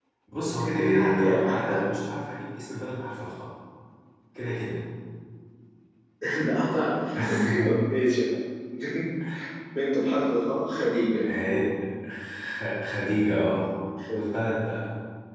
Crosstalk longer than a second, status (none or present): present